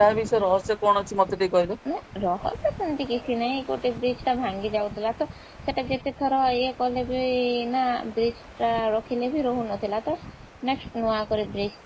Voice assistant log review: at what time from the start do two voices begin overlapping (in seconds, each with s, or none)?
none